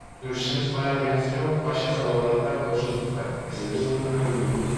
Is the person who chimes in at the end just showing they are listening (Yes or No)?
No